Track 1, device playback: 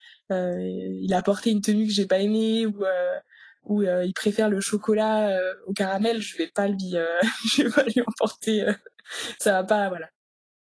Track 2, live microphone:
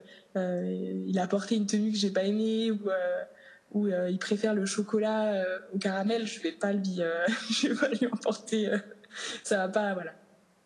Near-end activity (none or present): none